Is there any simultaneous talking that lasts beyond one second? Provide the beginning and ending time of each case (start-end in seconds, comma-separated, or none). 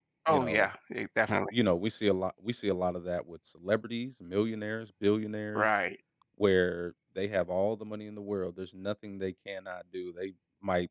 none